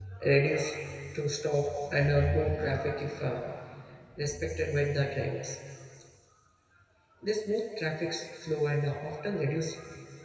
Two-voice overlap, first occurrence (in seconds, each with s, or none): none